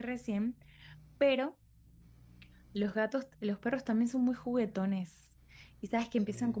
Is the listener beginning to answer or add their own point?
No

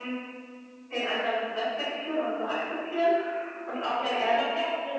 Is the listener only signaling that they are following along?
No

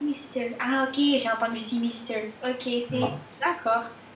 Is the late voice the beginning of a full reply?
No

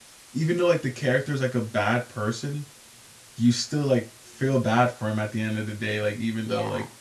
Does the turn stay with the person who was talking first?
Yes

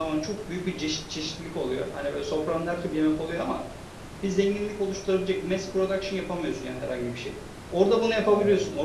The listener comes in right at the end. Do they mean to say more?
No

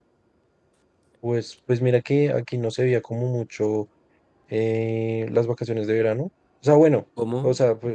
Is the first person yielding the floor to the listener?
No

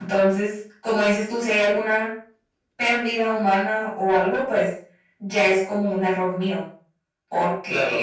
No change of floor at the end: Yes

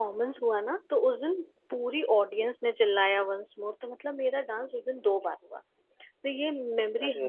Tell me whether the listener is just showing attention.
Yes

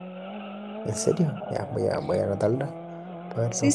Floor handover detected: Yes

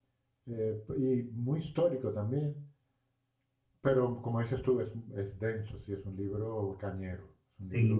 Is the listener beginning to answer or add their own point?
Yes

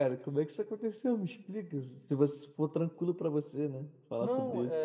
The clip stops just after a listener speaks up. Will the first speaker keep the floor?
No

